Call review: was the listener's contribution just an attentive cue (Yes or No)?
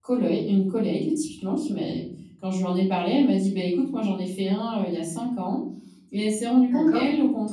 Yes